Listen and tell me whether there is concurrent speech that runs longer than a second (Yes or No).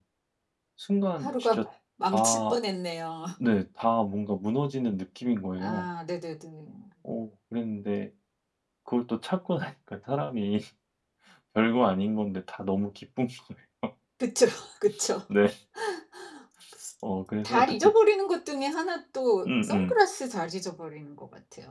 No